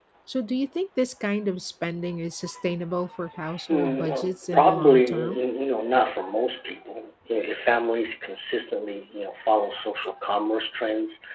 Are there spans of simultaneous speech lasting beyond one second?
Yes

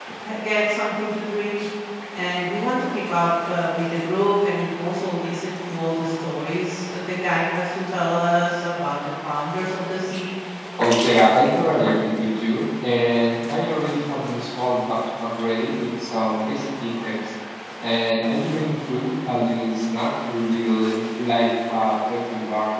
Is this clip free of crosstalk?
Yes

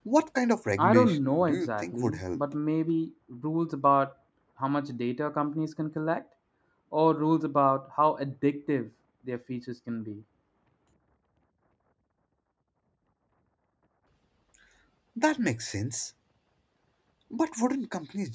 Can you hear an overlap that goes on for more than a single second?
Yes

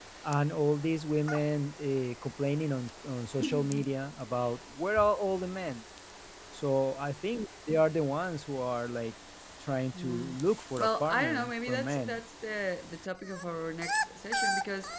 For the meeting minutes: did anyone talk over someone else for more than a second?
Yes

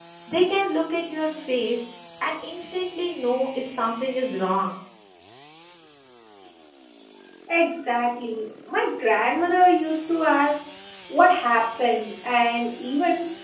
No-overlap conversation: Yes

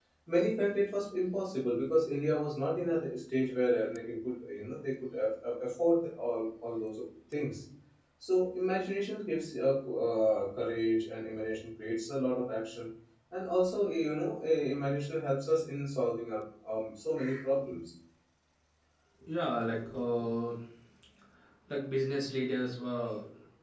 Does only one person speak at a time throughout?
Yes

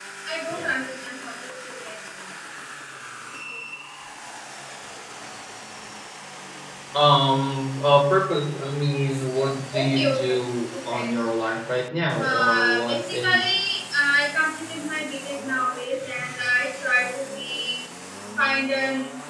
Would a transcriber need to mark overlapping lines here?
Yes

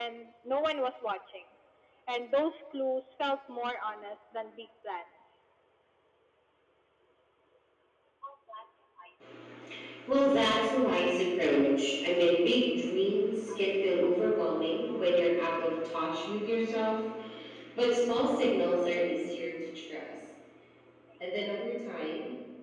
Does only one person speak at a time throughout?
Yes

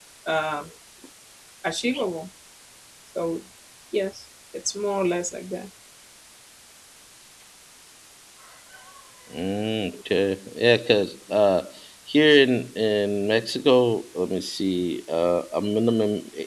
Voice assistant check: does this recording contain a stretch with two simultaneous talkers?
No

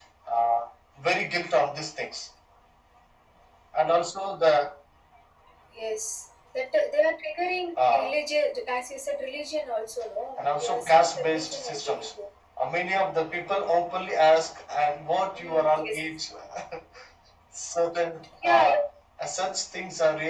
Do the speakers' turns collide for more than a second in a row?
Yes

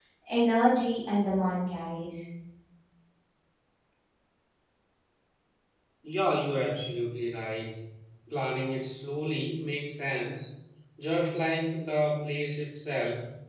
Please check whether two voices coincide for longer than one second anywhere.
No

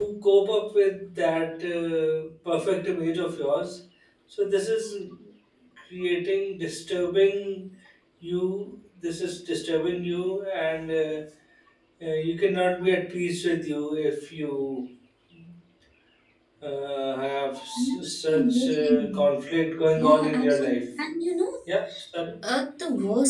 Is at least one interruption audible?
Yes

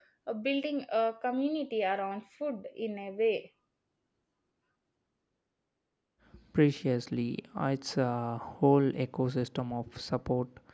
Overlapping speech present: No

